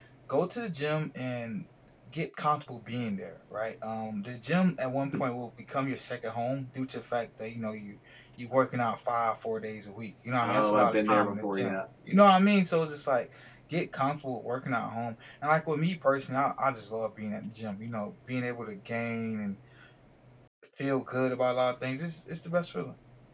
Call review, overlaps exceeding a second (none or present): present